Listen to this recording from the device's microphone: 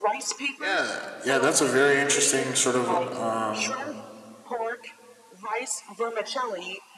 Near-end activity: present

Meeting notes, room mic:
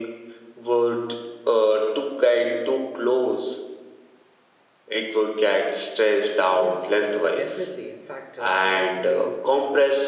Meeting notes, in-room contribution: present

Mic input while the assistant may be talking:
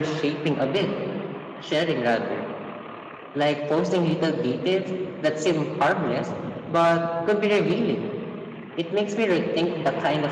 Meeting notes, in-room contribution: none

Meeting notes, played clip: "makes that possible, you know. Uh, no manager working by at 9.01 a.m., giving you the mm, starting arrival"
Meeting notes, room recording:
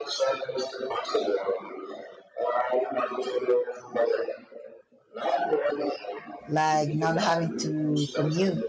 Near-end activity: present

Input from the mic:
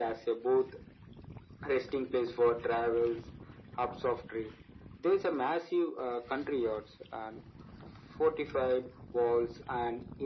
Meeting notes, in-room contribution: none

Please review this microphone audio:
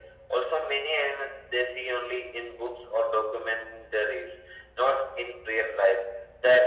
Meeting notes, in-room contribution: none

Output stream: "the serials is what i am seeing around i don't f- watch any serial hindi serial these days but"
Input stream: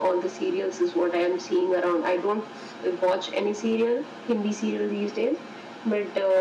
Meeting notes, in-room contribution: none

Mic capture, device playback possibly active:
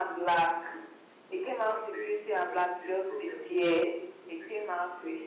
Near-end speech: none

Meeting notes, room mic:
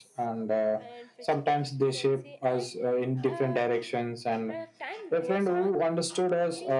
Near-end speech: present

